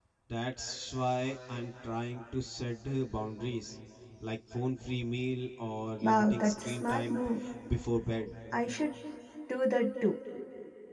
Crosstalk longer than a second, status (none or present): present